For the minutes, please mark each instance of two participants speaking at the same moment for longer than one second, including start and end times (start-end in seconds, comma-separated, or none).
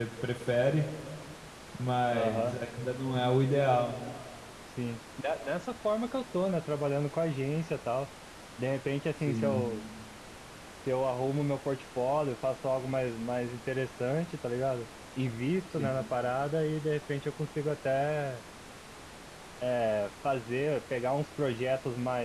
none